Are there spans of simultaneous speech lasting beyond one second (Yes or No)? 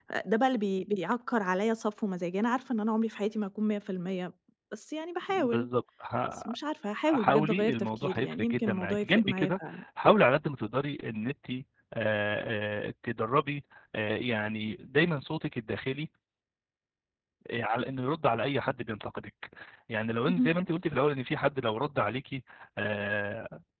Yes